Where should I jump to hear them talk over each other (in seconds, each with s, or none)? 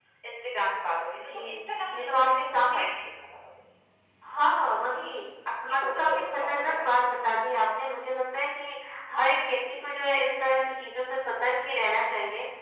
1.1 s